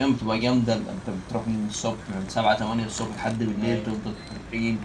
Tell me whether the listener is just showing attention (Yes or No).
Yes